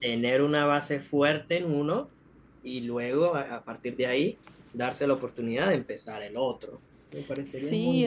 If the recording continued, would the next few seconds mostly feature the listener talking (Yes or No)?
Yes